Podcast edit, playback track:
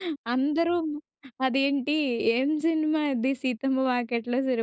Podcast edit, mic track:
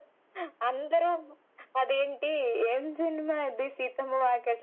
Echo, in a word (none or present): present